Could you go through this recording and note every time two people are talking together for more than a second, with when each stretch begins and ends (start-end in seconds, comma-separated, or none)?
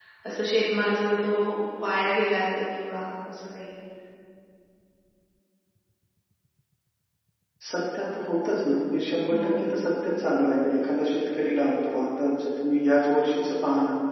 none